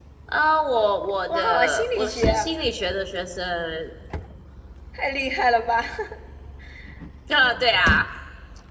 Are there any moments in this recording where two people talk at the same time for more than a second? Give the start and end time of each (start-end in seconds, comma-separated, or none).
1.3-2.5